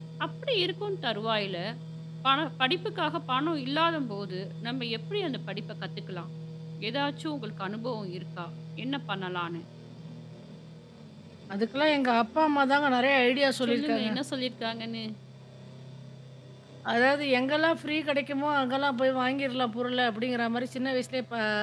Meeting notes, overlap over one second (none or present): none